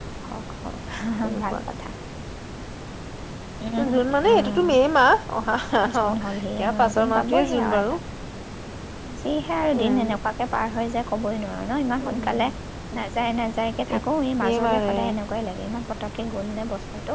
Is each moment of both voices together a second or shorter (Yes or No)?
No